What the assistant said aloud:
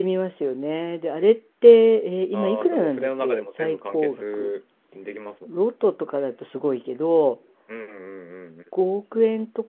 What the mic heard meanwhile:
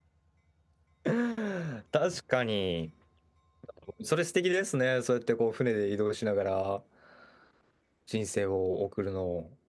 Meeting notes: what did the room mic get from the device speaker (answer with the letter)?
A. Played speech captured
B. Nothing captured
B